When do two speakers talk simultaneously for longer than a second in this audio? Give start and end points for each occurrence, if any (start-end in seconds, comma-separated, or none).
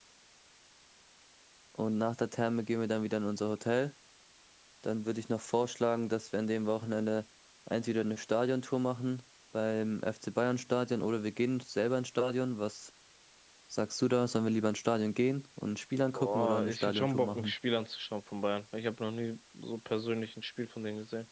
16.2-17.5